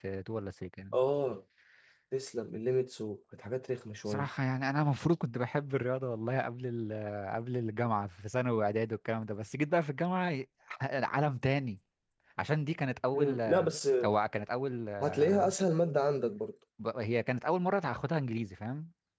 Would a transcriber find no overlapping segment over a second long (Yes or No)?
Yes